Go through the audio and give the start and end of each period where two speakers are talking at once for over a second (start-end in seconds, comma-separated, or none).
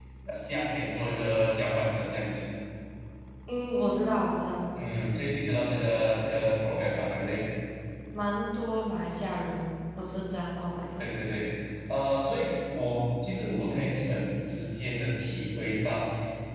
none